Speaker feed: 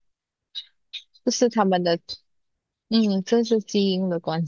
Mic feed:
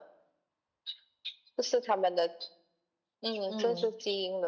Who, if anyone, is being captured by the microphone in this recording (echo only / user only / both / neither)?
both